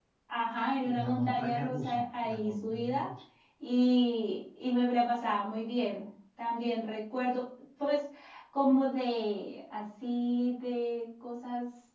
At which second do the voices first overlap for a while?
0.8 s

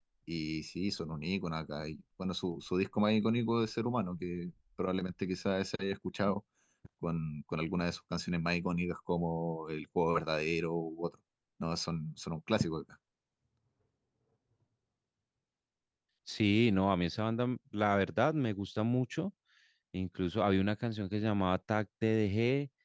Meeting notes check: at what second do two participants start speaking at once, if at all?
none

